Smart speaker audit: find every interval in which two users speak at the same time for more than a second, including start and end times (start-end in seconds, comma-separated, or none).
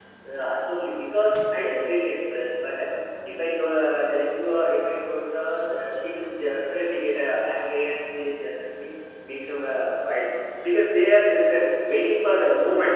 none